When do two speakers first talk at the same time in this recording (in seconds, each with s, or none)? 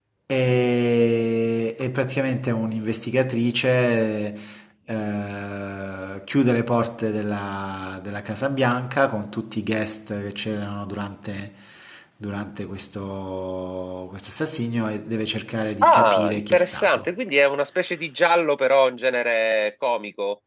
15.8 s